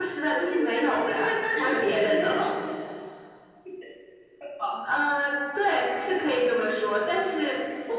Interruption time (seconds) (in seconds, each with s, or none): 0.5 s